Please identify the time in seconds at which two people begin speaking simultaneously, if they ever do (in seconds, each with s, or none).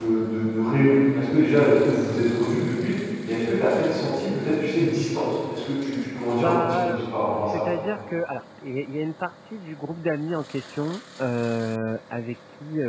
6.4 s